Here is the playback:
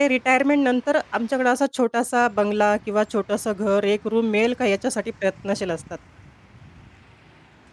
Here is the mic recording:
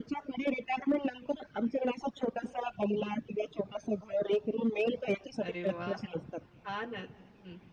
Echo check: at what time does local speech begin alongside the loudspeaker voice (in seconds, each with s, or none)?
5.4 s